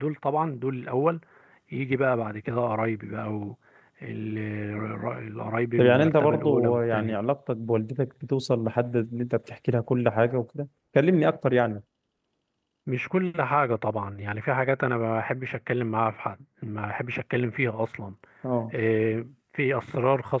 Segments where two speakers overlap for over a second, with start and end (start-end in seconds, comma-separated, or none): 5.8-7.2